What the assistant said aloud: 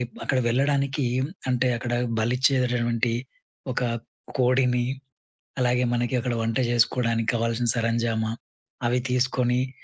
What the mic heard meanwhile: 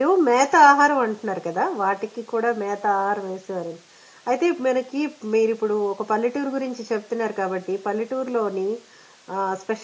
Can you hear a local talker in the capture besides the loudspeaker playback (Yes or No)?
Yes